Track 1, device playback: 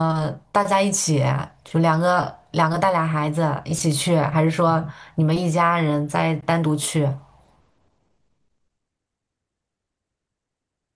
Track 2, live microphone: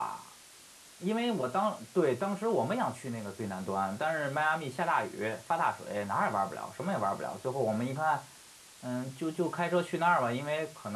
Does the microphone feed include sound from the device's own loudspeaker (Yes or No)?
No